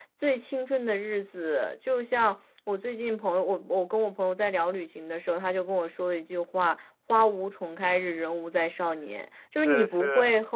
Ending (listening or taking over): listening